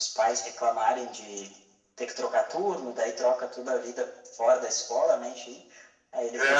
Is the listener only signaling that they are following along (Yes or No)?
Yes